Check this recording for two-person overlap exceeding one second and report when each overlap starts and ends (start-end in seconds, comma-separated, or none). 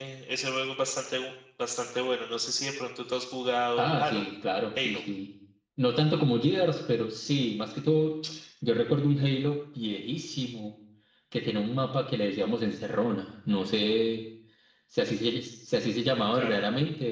none